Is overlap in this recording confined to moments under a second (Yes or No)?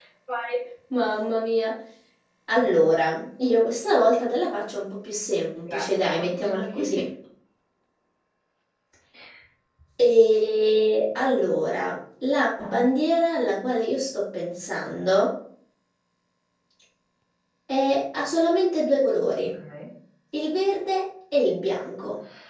No